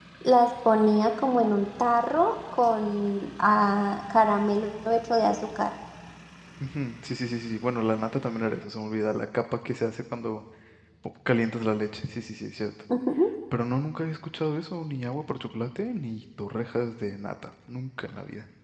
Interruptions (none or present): none